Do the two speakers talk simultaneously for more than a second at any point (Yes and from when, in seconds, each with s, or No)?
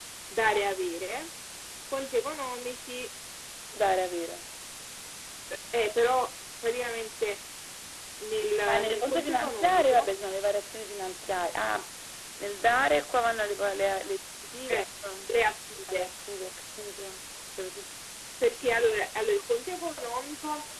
Yes, from 8.7 s